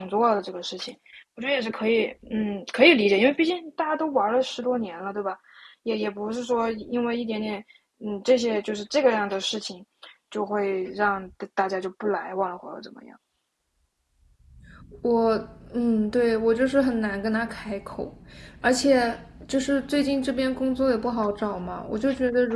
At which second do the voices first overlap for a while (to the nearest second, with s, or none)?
none